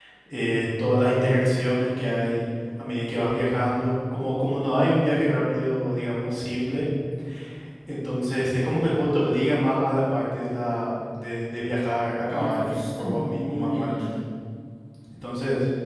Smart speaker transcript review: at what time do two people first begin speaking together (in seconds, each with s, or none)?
12.3 s